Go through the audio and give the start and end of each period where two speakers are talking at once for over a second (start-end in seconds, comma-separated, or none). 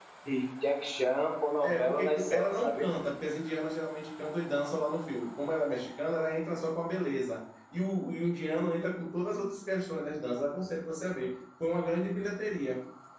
1.6-2.8